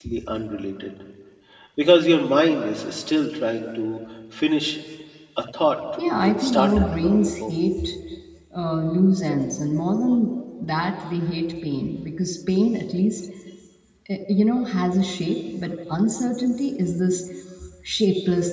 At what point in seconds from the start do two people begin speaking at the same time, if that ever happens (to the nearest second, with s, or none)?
6 s